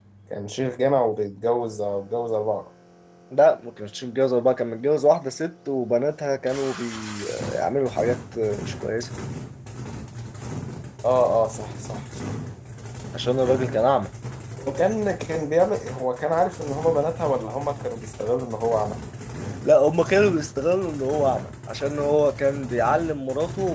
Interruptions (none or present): none